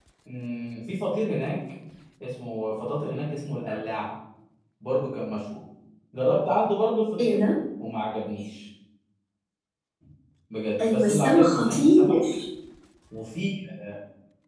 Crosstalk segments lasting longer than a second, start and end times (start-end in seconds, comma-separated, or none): 10.8-12.2